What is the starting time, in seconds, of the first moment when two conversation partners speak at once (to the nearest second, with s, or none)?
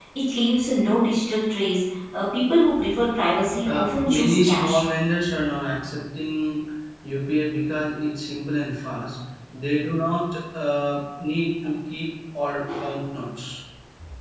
4 s